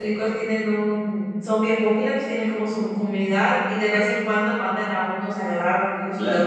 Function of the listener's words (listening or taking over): taking over